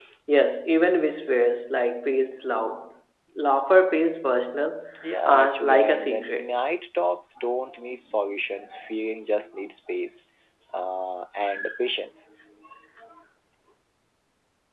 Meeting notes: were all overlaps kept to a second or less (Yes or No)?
No